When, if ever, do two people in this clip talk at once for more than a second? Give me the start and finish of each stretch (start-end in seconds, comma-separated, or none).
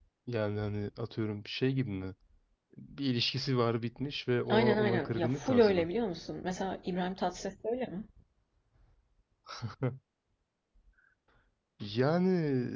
4.5-5.9